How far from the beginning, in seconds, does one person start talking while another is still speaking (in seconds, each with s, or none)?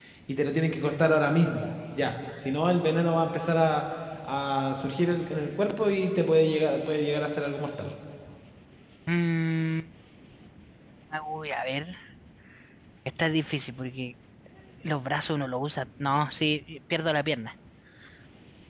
none